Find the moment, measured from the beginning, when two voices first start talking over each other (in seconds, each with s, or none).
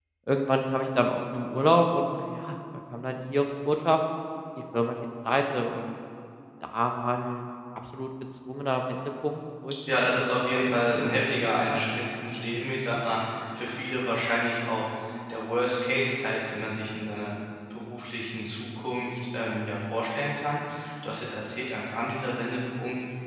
9.9 s